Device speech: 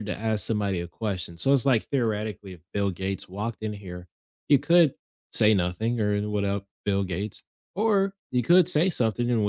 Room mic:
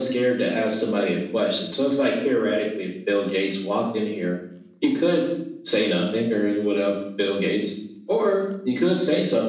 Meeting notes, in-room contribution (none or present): none